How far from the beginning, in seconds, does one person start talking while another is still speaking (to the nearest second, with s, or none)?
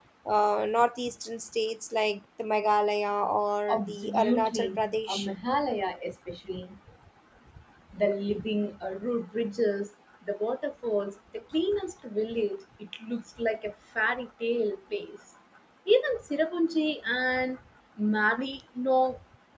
4 s